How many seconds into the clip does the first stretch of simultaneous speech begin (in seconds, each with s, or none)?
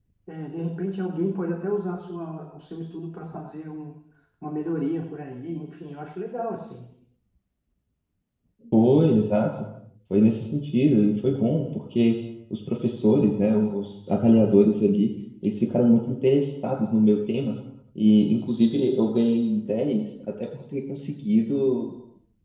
none